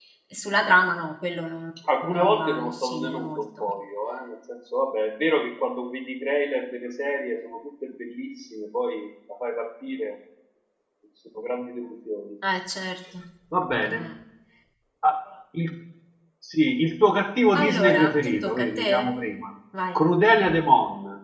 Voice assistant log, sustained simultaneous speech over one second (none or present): present